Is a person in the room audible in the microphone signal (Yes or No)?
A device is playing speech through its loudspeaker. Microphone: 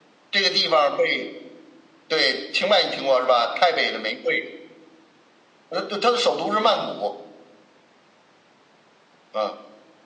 No